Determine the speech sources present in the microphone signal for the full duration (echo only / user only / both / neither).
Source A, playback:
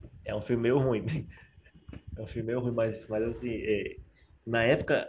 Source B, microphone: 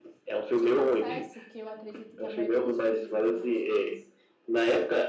both